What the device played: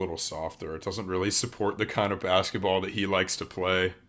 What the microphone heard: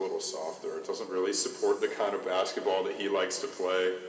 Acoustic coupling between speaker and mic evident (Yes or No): Yes